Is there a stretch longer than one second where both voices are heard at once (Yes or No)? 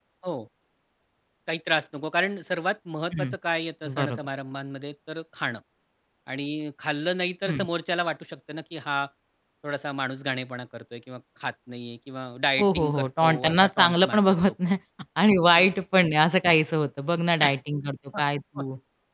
Yes